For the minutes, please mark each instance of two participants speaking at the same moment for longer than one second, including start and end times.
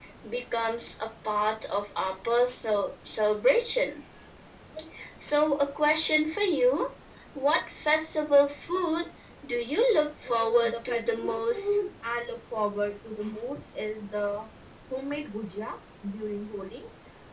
10.3-11.8

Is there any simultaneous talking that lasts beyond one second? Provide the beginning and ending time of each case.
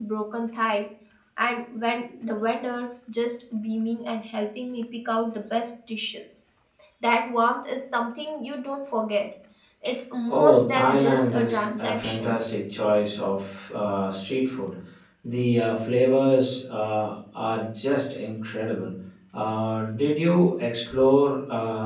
10.3-12.5

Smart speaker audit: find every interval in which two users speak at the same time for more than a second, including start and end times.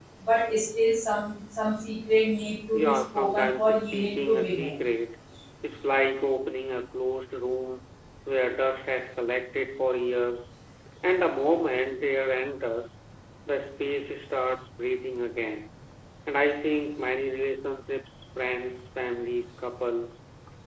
2.7-4.8

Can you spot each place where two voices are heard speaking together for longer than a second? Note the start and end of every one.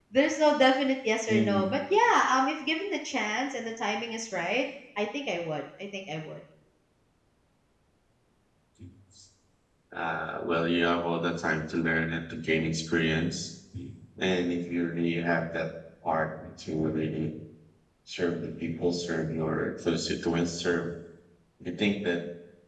none

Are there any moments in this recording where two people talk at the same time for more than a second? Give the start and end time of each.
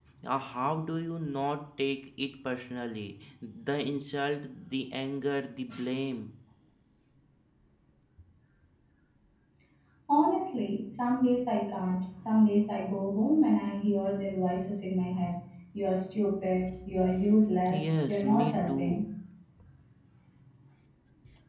17.7-19.0

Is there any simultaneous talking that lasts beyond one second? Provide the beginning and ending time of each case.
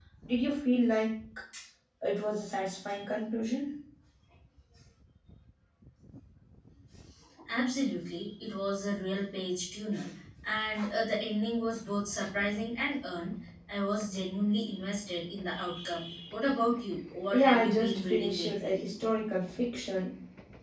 17.3-18.7

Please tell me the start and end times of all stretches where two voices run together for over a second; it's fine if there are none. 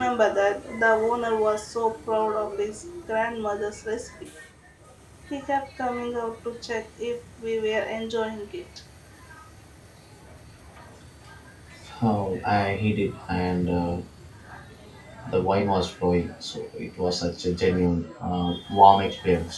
none

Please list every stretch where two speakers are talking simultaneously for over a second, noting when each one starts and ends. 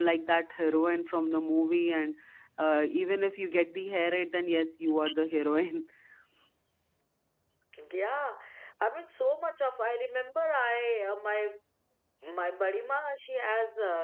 none

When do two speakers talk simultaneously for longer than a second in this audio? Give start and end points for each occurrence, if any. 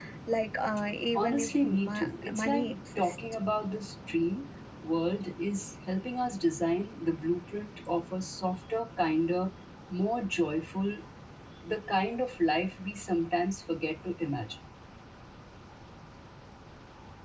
1.1-3.1

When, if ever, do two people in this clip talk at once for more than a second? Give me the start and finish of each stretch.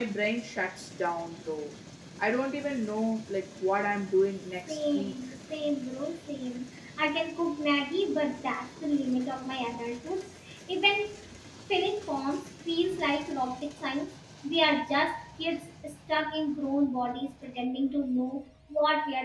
none

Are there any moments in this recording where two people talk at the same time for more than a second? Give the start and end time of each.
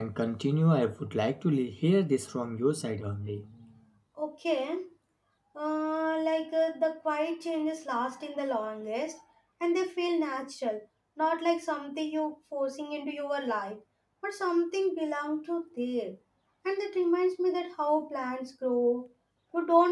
none

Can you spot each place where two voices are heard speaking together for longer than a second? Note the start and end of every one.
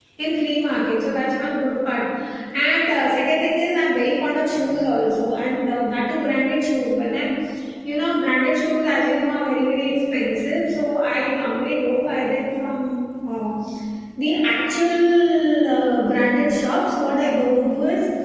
none

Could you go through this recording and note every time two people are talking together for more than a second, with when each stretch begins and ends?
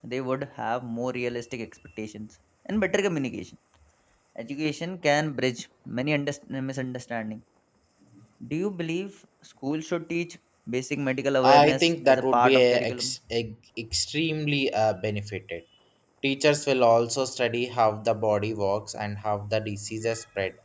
11.4-13.1

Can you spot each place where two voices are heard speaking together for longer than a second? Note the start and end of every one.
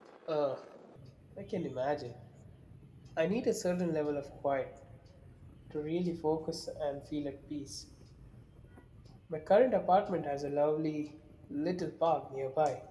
none

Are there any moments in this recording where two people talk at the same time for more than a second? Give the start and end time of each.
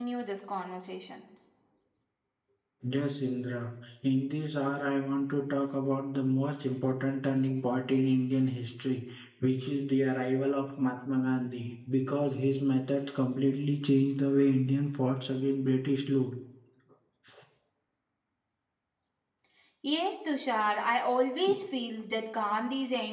none

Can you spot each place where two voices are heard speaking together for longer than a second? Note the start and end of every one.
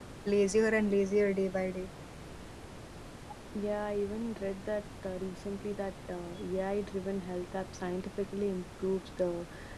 none

